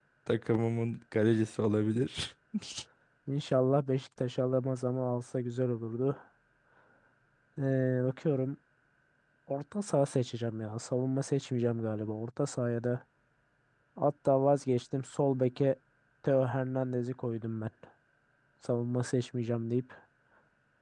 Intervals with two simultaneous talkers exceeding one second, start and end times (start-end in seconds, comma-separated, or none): none